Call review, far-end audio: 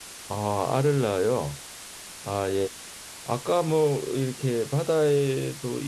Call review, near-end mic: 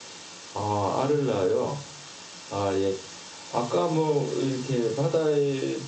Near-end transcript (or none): none